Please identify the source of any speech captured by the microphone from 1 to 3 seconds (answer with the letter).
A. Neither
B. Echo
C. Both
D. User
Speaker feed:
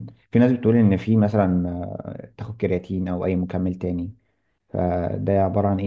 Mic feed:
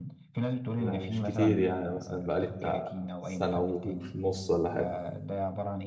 C